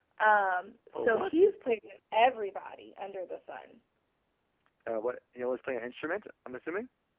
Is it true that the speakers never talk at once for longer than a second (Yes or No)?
Yes